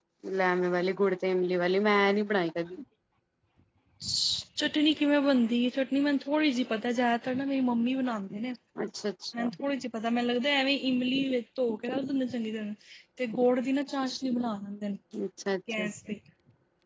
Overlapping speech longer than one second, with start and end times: none

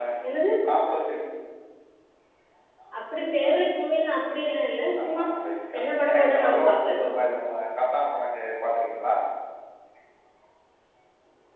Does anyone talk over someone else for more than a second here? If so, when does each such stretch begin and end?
5.8-7.1

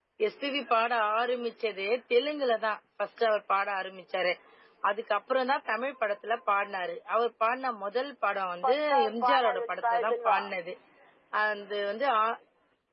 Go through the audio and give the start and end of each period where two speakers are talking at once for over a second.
8.6-10.4

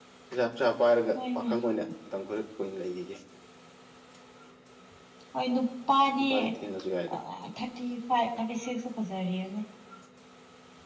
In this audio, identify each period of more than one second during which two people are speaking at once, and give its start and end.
none

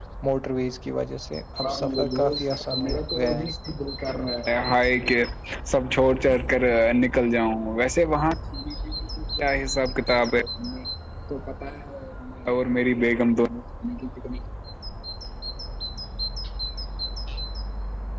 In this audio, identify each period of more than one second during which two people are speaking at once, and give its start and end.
1.6-3.5

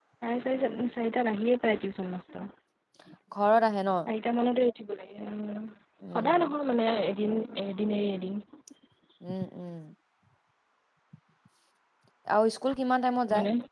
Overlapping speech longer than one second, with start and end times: none

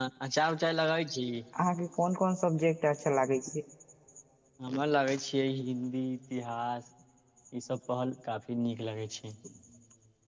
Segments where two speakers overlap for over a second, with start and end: none

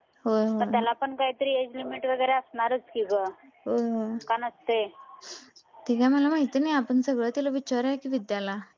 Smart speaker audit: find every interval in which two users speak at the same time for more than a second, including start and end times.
none

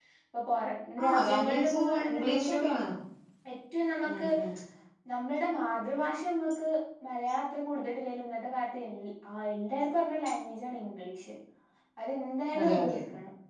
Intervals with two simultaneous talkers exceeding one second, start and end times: 1.0-2.6

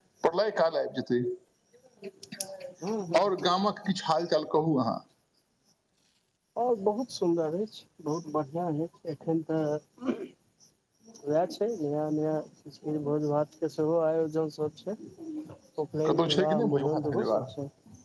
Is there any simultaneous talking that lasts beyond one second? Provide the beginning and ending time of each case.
16.1-17.4

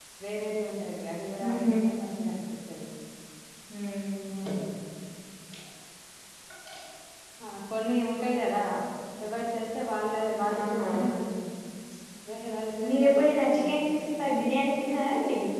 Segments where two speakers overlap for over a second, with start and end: 12.9-14.3

